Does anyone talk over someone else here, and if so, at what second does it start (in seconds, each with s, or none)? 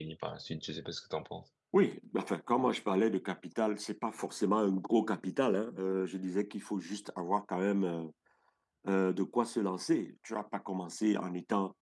none